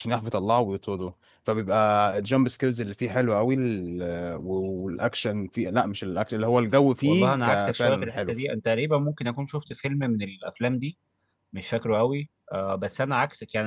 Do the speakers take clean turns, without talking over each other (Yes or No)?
No